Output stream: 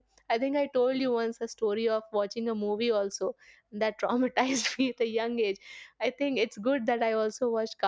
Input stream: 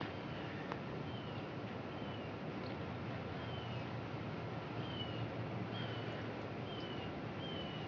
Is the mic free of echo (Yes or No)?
Yes